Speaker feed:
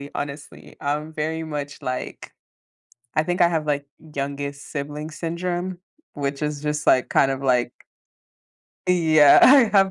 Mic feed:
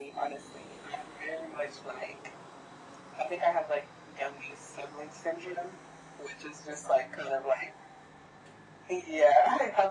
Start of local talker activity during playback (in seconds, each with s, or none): none